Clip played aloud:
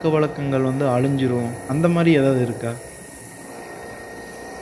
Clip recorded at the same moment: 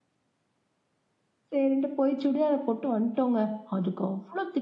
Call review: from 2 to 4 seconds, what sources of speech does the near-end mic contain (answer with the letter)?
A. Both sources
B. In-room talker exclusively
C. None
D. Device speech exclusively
B